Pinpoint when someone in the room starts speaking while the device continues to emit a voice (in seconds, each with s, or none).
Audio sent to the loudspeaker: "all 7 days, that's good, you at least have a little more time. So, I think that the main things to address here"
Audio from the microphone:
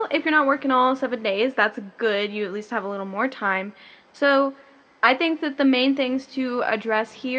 none